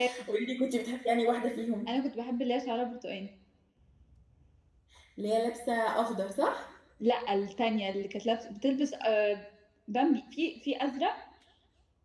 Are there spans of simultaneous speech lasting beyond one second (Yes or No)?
No